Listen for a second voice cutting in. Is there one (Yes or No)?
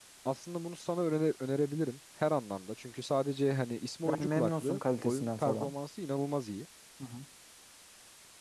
Yes